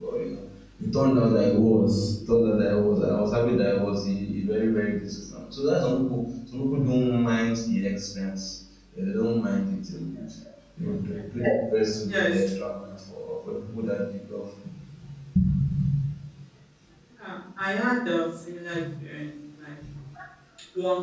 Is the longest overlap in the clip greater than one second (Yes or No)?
No